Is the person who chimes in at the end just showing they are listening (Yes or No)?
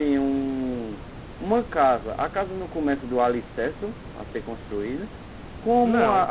Yes